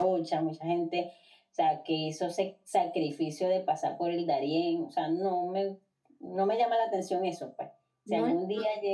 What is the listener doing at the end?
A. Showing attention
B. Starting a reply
A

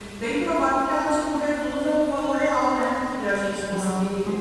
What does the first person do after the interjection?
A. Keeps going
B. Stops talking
A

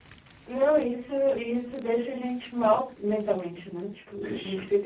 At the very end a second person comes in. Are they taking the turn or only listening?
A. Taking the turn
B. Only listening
B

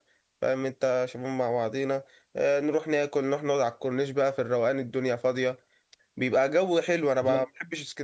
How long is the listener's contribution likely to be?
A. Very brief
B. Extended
A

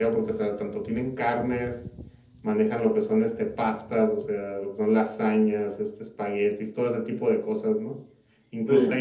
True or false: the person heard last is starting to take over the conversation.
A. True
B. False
B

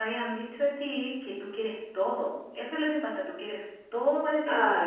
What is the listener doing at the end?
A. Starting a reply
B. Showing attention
A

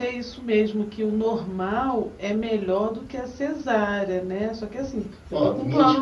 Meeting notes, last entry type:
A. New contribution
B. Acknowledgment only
A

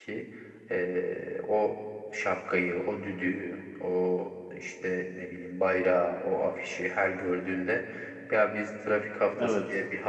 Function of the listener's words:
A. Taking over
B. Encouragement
B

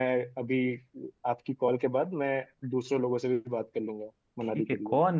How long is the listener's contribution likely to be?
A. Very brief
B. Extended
B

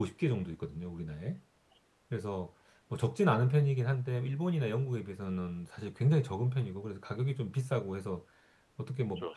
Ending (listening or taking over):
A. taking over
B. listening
B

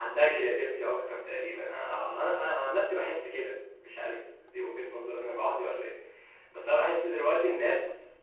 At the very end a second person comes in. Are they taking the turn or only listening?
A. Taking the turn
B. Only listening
B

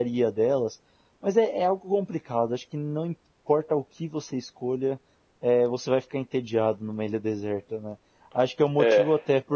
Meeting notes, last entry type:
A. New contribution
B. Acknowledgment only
B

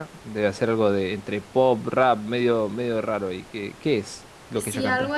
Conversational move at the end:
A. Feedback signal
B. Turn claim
B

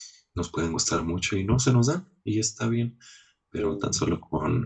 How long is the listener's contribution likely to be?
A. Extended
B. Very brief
B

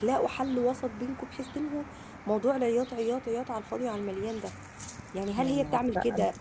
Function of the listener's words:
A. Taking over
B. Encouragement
B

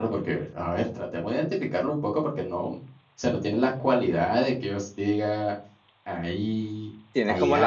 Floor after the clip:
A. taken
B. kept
A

